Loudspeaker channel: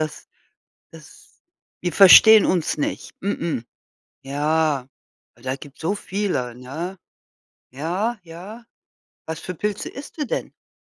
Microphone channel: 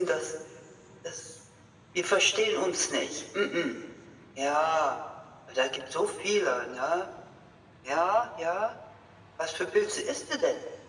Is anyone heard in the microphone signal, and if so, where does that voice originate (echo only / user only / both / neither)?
echo only